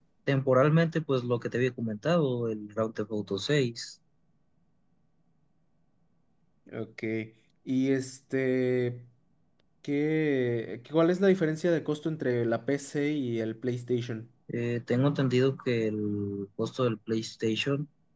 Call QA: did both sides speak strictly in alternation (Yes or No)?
Yes